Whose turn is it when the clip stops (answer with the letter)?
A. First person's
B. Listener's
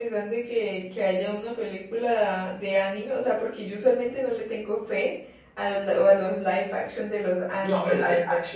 B